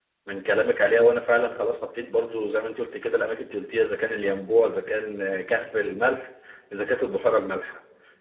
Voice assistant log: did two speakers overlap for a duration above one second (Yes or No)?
No